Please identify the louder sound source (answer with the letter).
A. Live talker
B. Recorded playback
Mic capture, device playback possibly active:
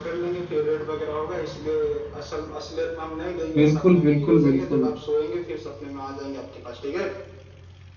A